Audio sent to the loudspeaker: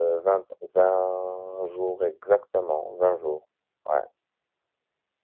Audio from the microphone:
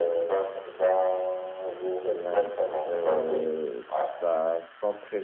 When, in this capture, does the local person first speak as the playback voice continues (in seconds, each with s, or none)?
2.1 s